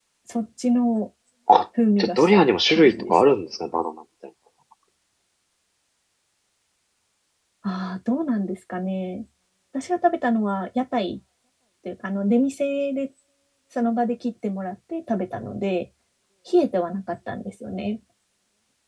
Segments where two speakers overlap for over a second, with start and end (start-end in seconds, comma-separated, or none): 2.0-3.2